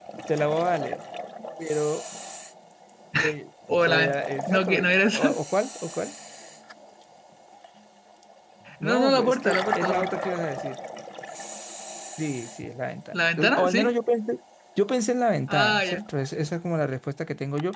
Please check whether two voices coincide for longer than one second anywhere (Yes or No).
Yes